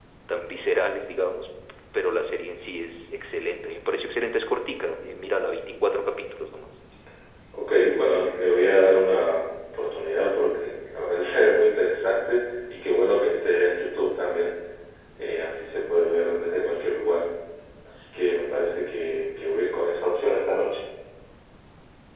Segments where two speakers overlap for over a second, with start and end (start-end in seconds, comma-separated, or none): none